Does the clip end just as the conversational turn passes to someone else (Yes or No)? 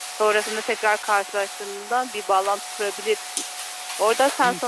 Yes